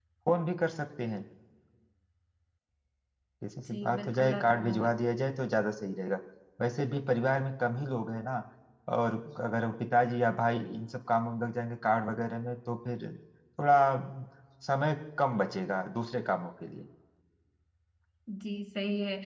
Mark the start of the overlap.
3.7 s

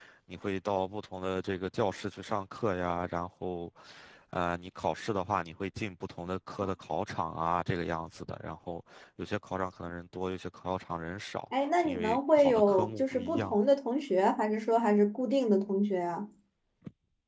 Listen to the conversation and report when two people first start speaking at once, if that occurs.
11.8 s

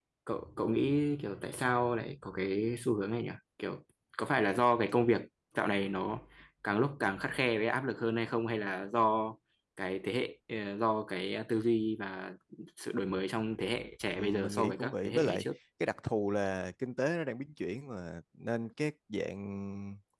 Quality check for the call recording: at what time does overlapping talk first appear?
14.1 s

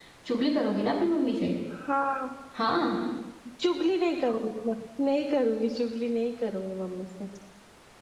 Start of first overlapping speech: none

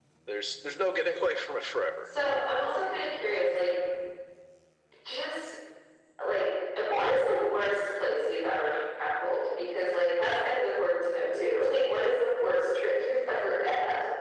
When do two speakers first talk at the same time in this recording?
none

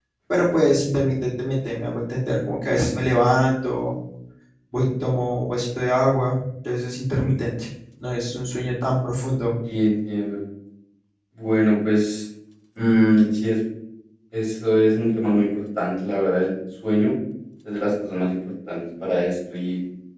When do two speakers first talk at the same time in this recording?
none

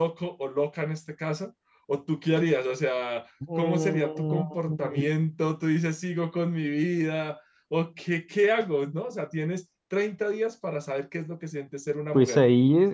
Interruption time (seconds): 3.6 s

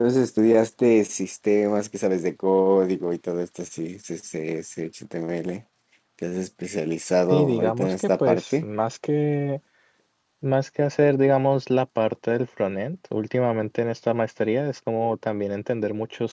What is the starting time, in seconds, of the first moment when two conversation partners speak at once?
7.3 s

